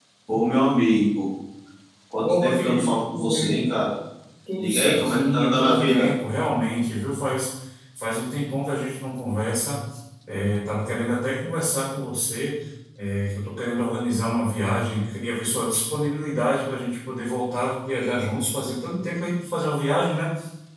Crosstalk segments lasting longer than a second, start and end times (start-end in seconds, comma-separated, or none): 2.2-3.6, 4.6-6.1